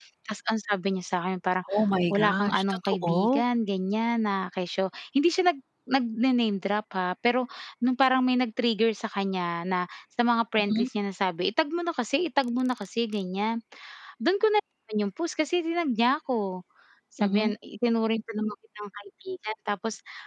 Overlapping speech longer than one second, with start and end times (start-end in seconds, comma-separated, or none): 2.1-3.4